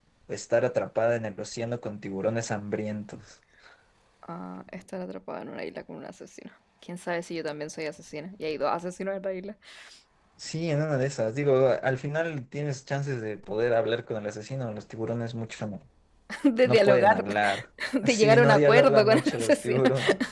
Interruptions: present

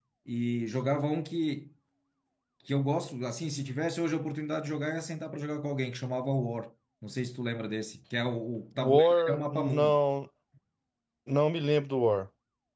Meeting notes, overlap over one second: present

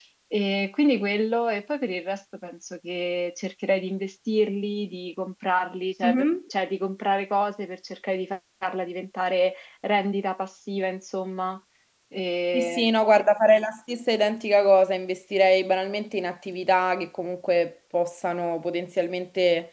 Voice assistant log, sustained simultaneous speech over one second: none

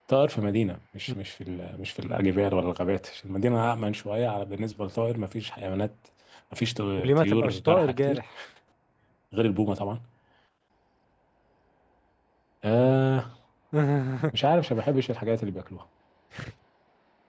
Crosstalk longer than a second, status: present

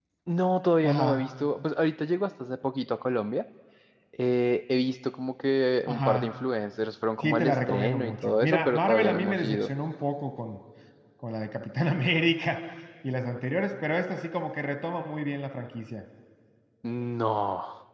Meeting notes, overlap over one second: present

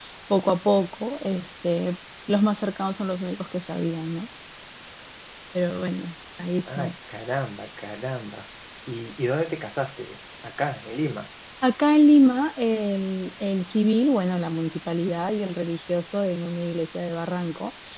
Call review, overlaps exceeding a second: none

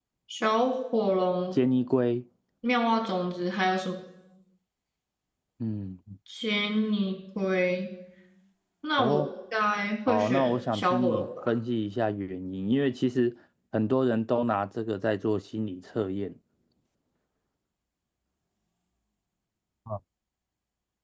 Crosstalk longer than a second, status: present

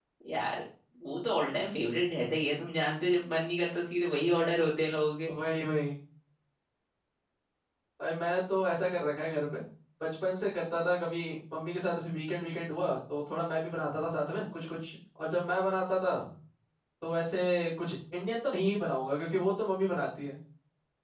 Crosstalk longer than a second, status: none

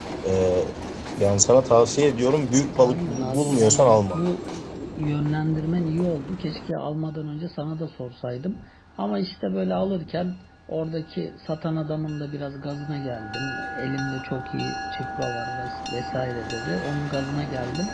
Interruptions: present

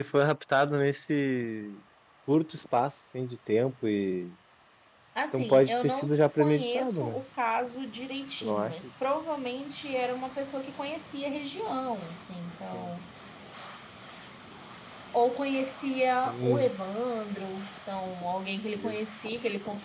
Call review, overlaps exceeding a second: present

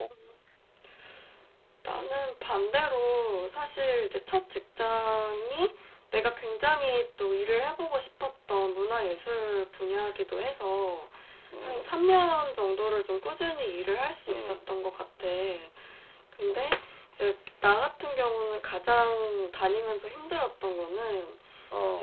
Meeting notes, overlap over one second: none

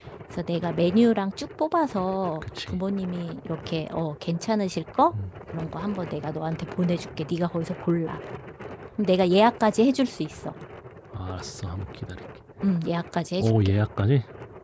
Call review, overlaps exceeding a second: none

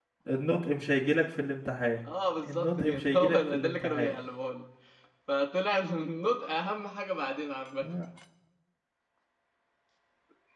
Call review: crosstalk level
present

